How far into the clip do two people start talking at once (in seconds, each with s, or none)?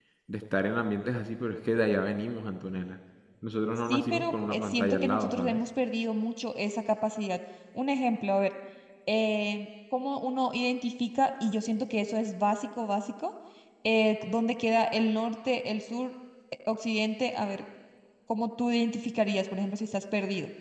3.9 s